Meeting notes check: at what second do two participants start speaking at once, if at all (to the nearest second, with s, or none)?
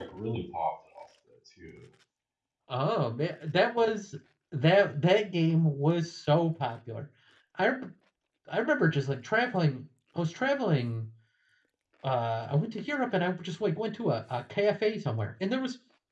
none